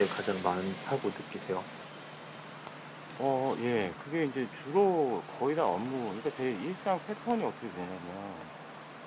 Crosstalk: none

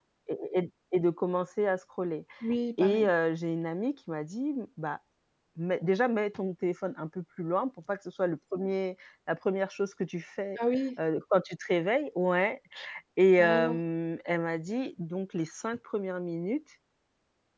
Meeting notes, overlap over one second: none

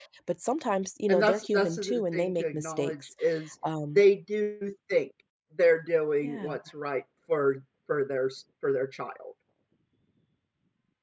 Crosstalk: present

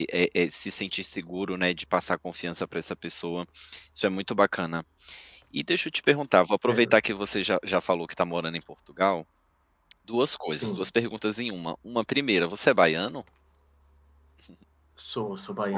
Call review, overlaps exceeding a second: none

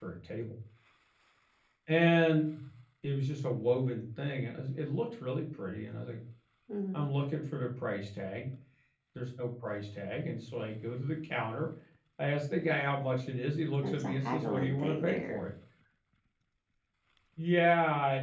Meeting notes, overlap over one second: present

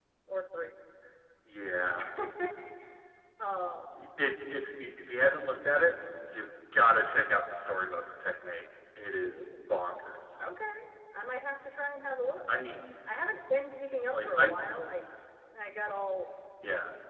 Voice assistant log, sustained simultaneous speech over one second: none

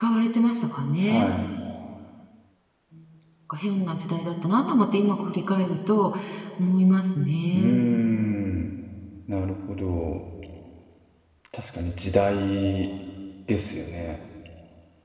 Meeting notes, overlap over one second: none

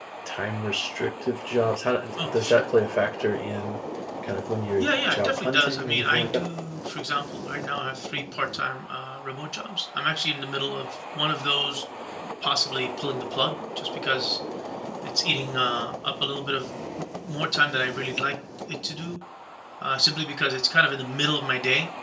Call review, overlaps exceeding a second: present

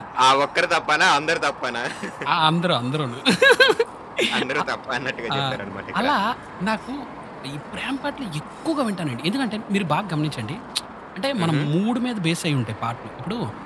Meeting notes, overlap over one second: none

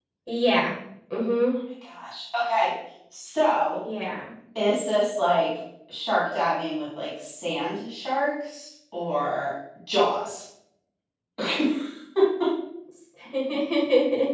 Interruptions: none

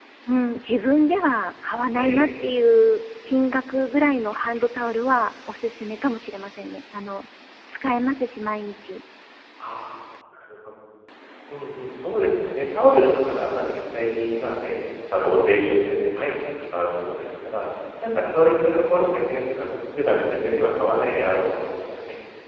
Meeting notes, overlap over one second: none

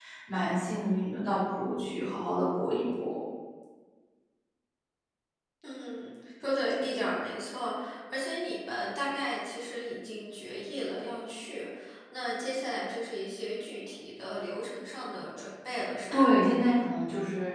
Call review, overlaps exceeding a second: none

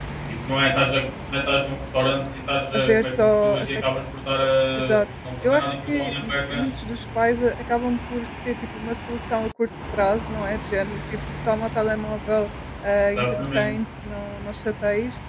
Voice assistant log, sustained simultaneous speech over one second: present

